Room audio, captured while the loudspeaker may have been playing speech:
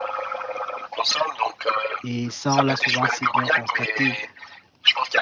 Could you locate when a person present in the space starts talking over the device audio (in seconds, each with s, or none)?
2.0 s